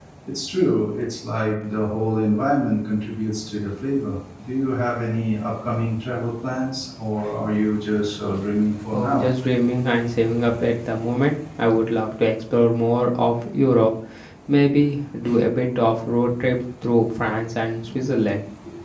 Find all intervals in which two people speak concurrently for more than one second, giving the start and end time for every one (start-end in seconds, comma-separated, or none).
none